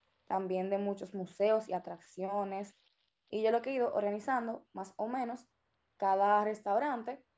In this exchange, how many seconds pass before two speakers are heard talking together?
none

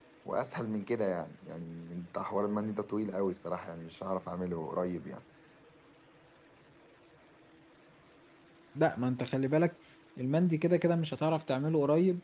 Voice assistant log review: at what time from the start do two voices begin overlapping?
none

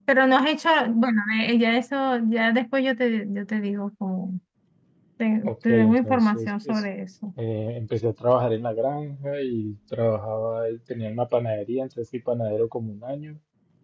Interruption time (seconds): 5 s

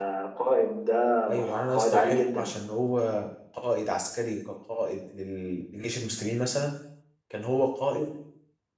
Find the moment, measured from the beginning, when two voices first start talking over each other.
1 s

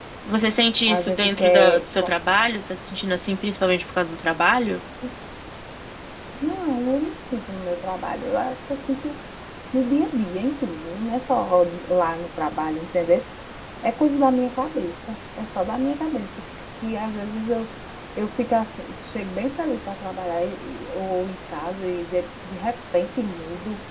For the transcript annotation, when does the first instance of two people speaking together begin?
1 s

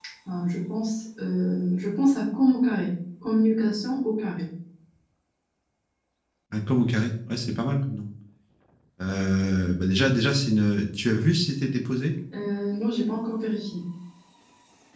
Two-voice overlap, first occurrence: none

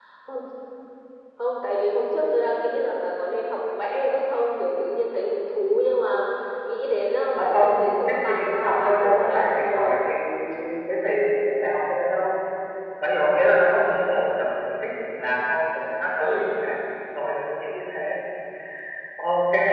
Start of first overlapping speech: 7 s

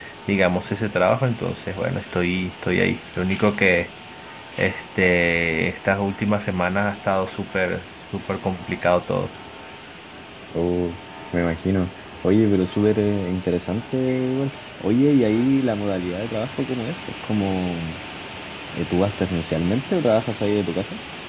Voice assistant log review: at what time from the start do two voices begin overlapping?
none

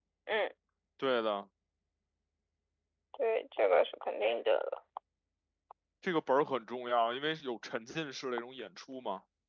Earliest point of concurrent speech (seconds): none

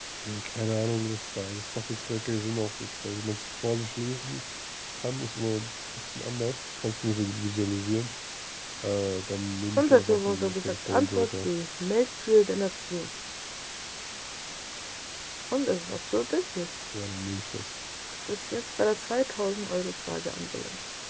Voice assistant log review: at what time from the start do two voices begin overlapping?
10 s

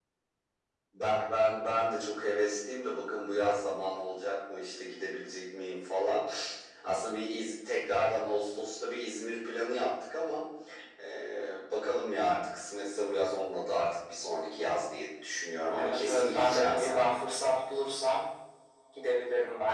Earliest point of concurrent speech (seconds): 16 s

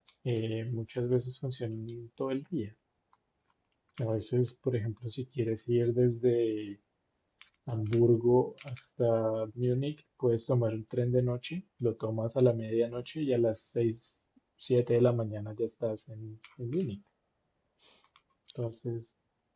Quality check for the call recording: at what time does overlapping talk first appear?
none

